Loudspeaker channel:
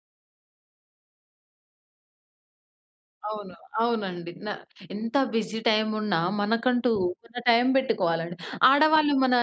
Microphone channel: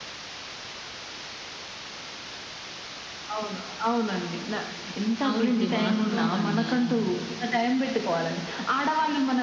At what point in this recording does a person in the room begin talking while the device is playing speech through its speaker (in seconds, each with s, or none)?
5.3 s